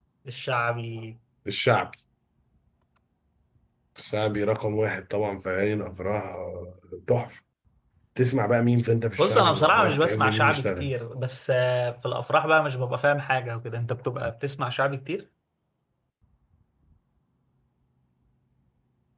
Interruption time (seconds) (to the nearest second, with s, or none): 9 s